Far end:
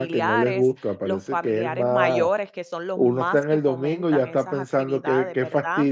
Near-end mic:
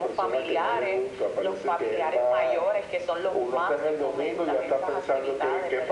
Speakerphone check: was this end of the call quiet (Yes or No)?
Yes